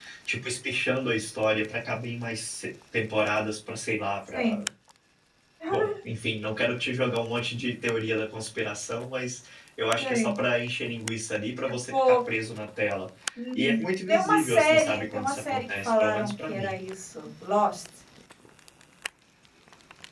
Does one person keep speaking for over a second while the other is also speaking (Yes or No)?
Yes